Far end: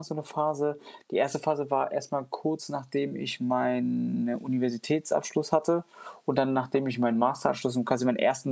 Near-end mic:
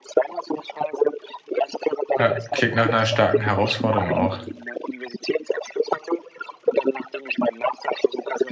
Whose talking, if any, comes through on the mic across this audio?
both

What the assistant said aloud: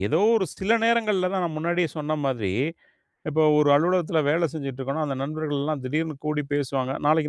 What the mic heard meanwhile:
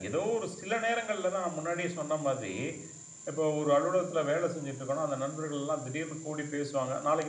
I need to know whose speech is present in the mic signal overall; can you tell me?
echo only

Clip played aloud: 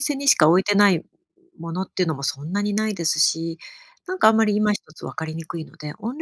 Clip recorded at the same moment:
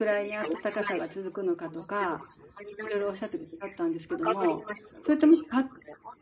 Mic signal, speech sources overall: both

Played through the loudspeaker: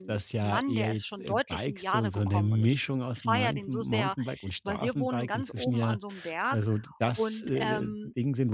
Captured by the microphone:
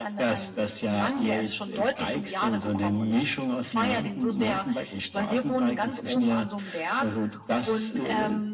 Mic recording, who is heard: echo only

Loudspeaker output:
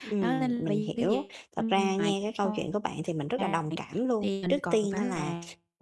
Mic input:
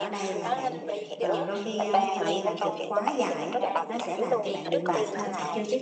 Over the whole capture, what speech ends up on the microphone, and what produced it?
both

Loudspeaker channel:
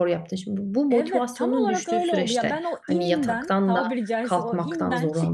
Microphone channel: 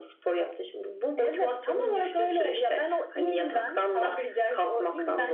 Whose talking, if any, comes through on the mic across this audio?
echo only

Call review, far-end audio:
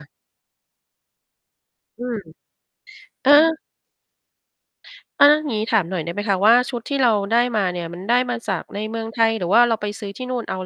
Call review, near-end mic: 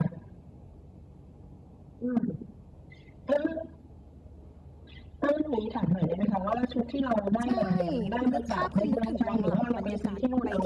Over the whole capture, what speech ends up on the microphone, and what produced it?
both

